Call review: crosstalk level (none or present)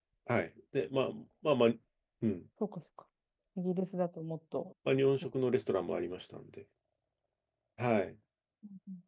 none